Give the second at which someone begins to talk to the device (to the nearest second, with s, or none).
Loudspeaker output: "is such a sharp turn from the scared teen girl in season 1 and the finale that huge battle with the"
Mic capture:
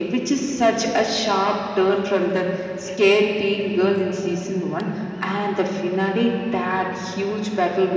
none